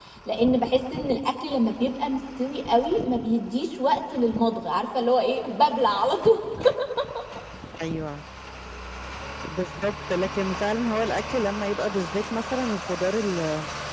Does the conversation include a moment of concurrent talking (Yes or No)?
No